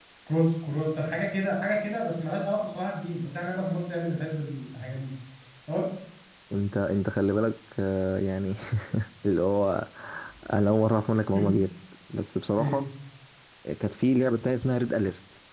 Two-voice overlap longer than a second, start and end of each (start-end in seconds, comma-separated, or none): none